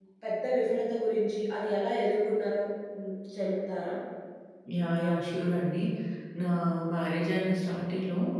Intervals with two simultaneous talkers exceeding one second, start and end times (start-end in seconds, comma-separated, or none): none